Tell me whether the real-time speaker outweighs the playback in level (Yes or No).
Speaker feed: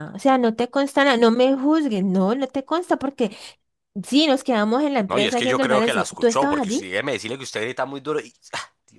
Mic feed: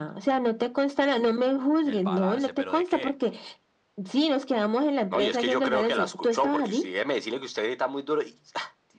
No